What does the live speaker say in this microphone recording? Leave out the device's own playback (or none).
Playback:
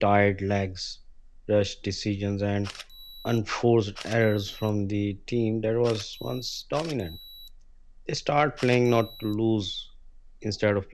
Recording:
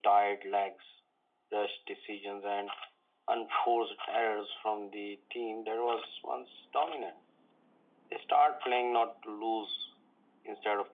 none